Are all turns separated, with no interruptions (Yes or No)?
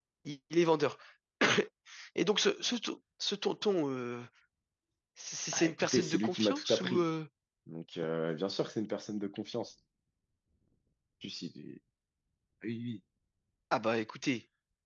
No